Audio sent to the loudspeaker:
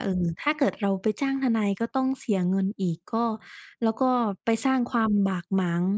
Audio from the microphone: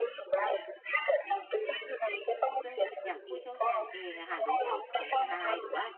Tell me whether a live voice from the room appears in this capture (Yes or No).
Yes